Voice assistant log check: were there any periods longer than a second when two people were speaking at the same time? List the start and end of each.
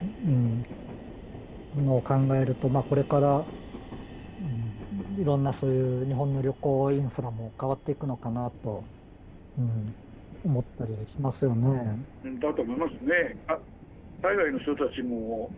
none

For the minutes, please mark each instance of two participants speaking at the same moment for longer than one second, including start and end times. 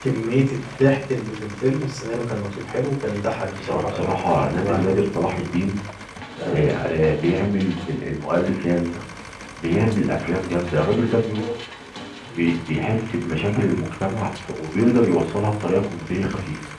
3.6-4.8

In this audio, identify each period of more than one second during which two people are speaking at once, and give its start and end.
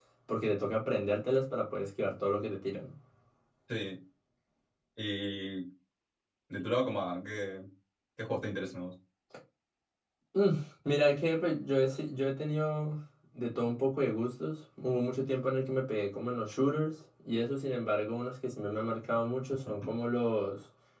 none

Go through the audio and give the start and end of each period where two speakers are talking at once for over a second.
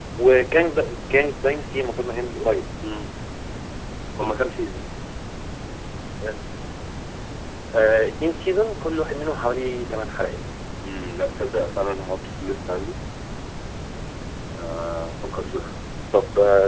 none

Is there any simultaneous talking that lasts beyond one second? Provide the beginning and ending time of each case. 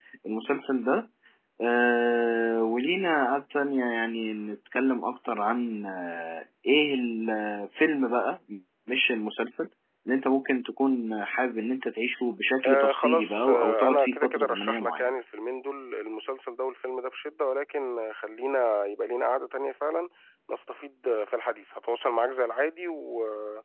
12.6-15.1

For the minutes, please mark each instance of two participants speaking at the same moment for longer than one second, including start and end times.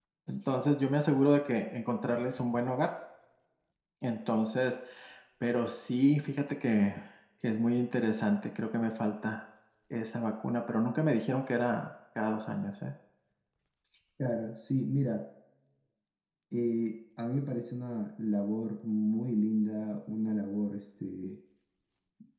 none

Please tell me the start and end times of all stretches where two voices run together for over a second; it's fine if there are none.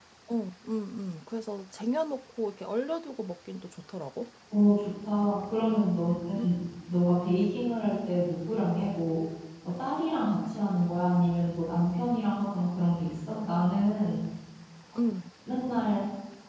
none

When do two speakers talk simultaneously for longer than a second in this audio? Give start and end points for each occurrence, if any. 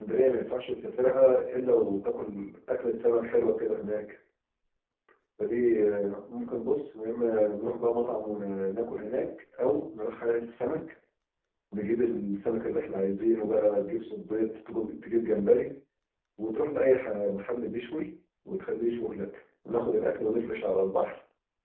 none

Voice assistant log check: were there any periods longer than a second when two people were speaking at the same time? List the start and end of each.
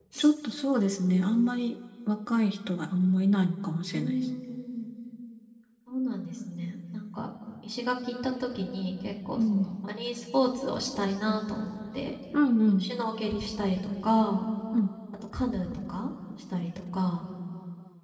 none

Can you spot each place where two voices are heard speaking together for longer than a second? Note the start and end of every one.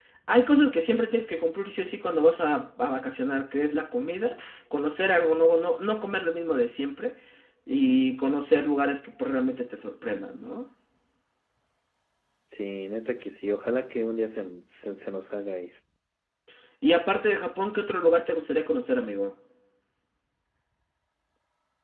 none

